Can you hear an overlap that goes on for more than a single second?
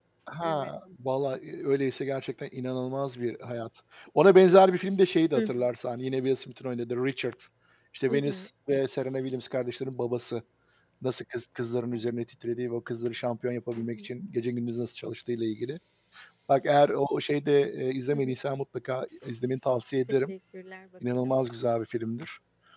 No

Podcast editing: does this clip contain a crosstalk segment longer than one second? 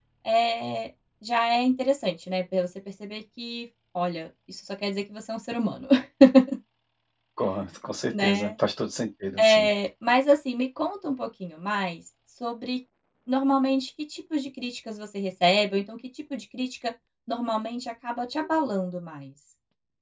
No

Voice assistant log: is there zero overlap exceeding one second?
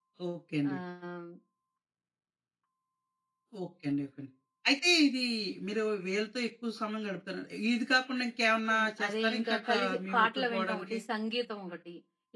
No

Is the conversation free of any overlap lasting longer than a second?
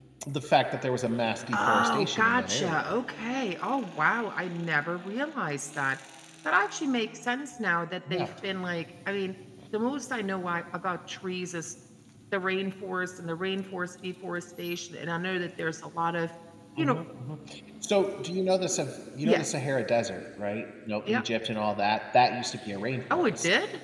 No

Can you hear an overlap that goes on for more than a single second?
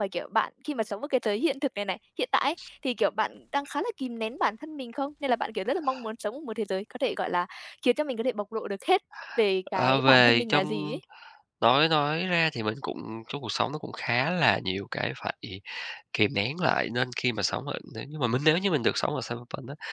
Yes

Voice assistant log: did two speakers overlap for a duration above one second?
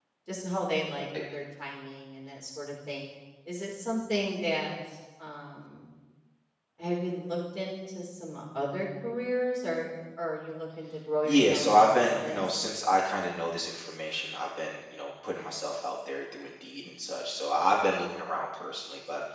Yes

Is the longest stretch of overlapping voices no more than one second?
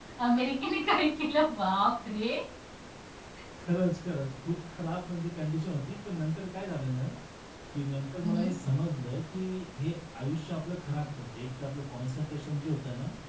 Yes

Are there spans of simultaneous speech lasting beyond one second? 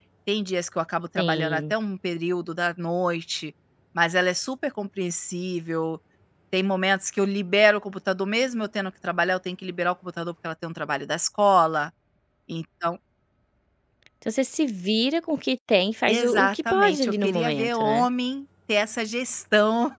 Yes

